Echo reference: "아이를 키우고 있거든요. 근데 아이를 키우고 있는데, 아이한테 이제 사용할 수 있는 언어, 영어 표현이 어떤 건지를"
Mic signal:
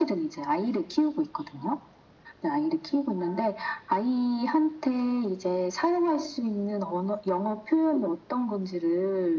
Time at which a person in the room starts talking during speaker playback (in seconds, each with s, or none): none